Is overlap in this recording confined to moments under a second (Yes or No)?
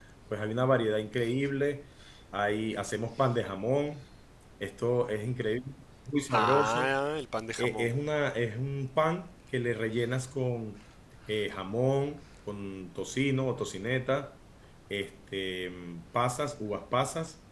Yes